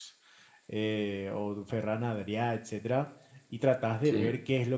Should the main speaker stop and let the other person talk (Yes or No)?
No